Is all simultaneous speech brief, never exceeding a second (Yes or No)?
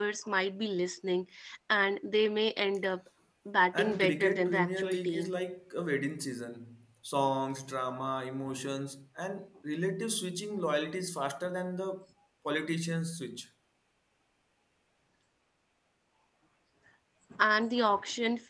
No